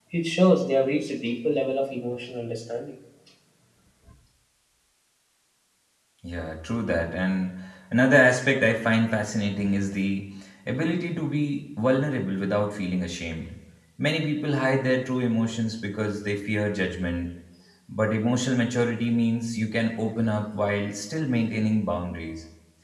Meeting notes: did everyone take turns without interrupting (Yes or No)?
Yes